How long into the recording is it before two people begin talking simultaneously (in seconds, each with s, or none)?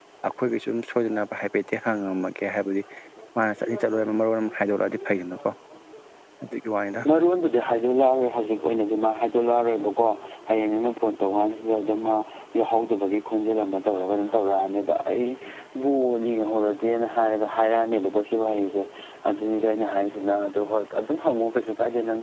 none